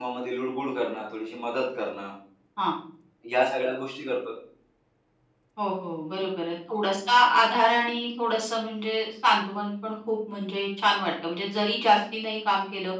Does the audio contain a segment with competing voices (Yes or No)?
No